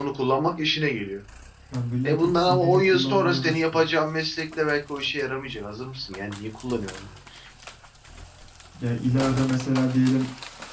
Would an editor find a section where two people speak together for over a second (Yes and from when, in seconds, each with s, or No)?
Yes, from 2.1 s